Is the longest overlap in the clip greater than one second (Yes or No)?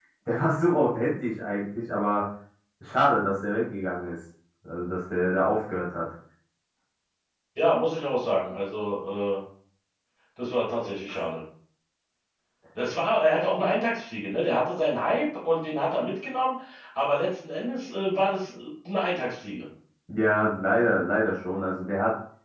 No